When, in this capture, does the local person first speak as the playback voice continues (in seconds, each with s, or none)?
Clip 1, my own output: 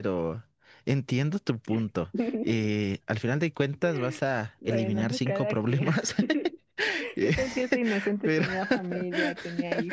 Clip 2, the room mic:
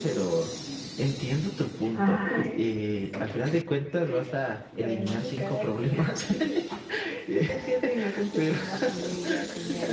1.9 s